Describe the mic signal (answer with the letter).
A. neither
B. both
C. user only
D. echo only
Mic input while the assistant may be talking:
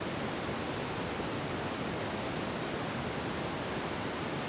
A